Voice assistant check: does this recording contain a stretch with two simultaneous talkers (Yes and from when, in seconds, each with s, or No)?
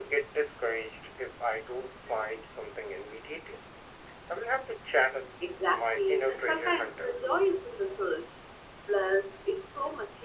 Yes, from 5.7 s